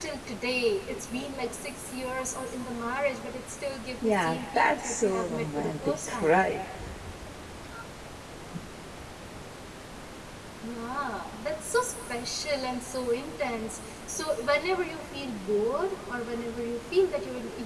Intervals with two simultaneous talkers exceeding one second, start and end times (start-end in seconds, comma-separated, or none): 4.0-6.5